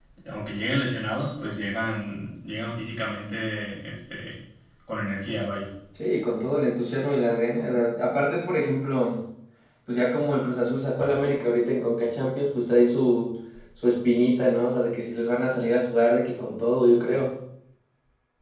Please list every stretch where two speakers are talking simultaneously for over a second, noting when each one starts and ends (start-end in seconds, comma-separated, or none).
none